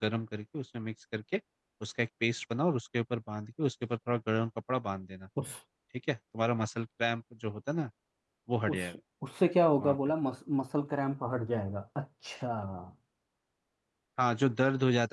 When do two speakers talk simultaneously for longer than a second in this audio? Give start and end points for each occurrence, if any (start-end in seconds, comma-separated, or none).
none